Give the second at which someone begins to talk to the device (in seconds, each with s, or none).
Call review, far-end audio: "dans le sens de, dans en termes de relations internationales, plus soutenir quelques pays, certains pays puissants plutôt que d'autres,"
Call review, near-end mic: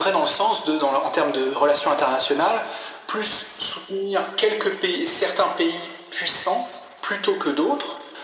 none